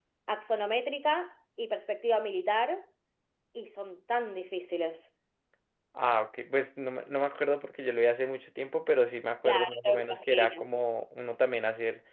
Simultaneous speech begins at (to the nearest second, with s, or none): 9 s